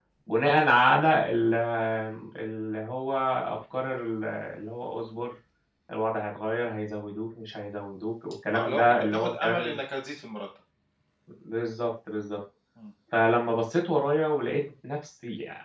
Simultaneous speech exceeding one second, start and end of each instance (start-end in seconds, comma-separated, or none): 8.5-9.8